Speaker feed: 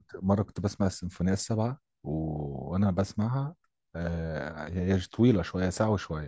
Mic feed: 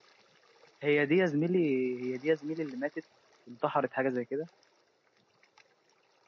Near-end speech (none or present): present